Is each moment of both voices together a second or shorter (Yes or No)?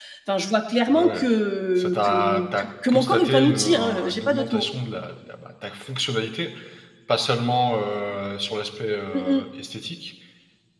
No